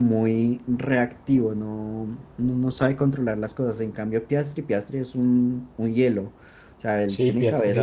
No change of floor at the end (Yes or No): No